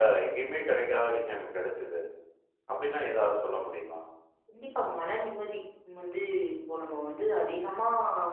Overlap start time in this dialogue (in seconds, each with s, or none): none